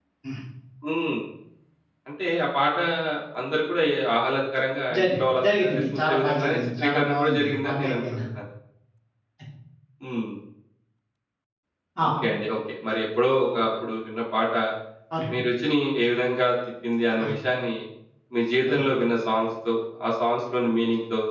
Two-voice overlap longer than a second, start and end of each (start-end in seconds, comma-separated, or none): 5.0-7.9